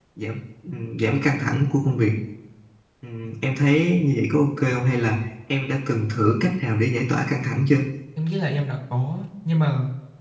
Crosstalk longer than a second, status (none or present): none